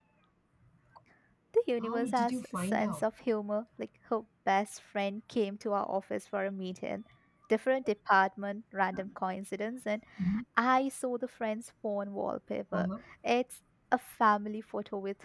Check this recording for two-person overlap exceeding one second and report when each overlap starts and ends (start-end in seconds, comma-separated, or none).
1.8-3.0